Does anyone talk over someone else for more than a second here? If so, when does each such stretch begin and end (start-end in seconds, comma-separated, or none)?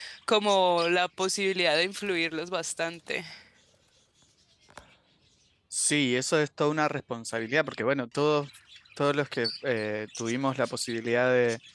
none